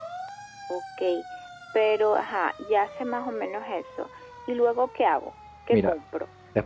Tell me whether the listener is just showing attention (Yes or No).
No